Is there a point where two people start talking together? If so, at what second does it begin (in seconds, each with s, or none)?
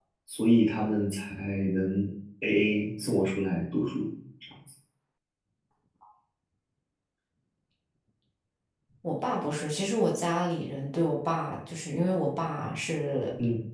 none